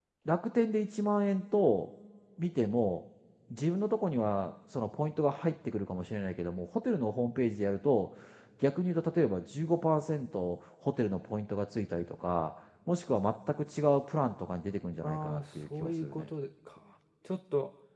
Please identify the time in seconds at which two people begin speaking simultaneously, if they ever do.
15 s

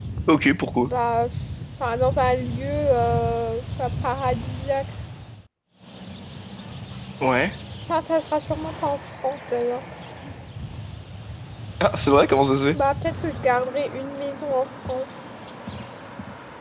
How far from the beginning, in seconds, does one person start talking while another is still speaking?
none

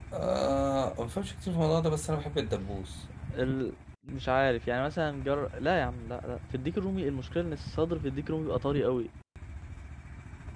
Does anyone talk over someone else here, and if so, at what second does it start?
none

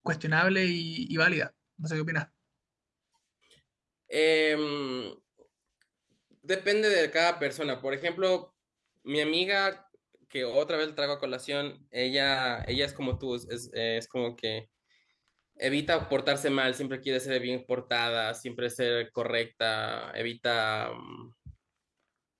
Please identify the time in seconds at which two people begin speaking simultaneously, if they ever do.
none

